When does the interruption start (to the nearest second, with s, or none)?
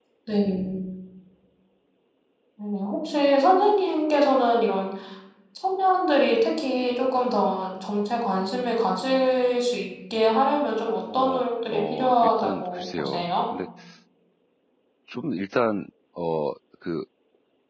11 s